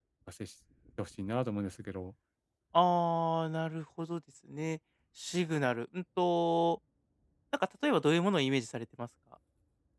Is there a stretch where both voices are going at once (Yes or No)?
No